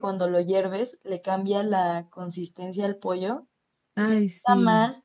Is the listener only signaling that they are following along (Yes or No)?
Yes